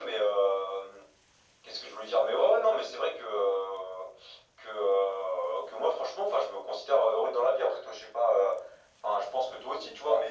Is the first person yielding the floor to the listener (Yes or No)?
No